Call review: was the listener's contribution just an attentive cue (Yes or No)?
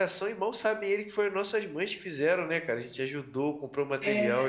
Yes